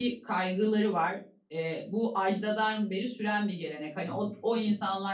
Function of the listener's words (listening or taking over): listening